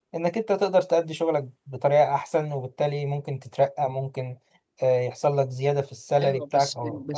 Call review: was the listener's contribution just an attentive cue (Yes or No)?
No